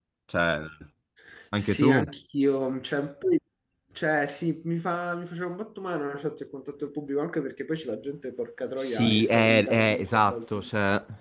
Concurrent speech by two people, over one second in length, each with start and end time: 8.8-10.6

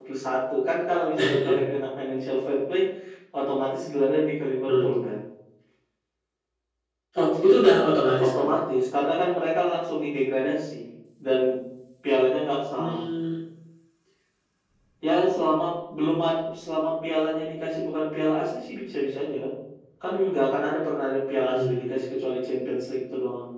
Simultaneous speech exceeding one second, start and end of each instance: none

